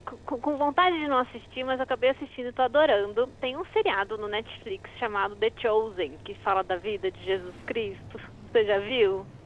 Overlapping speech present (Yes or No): No